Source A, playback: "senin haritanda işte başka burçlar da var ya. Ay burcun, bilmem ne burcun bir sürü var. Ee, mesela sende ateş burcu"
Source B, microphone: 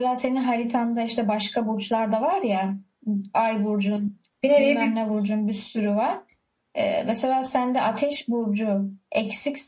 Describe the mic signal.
both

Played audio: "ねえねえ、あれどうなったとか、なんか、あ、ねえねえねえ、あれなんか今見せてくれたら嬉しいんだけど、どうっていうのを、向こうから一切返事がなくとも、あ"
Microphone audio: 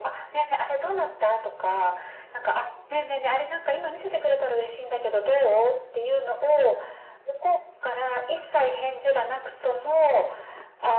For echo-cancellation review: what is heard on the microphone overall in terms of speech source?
echo only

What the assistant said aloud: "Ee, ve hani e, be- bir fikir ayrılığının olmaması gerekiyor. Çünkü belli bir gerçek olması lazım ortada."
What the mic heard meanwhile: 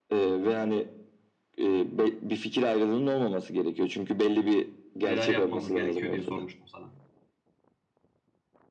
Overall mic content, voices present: both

